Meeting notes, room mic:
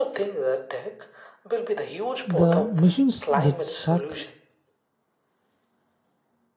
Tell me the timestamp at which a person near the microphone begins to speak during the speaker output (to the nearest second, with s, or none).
2 s